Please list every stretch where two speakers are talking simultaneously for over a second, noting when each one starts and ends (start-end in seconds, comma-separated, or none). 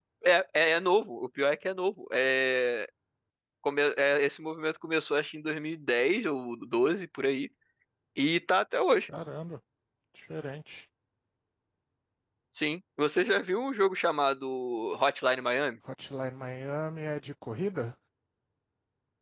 none